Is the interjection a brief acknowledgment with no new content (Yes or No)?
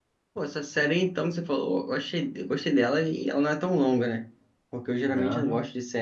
Yes